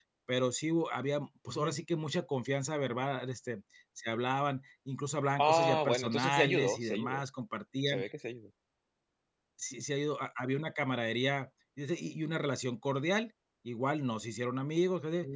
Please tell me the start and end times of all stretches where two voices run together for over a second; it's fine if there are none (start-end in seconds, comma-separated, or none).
5.4-7.2